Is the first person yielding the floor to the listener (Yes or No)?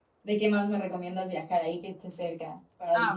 Yes